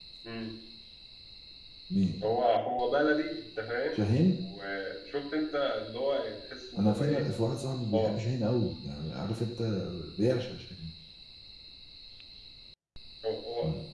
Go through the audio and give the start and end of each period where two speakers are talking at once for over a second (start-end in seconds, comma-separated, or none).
none